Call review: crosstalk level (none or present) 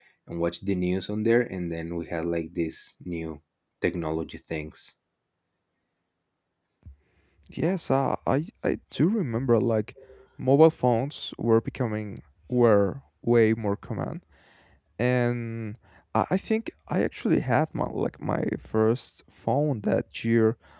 none